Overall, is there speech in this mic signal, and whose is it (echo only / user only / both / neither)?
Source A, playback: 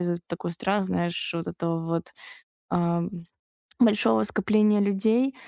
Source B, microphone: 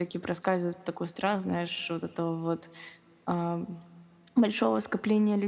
echo only